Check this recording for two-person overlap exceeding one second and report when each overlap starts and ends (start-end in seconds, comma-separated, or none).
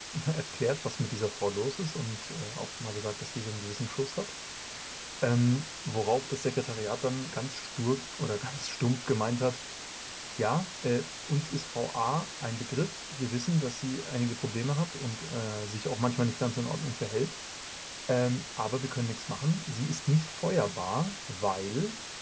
none